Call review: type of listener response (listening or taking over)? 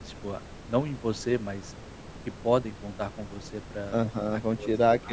taking over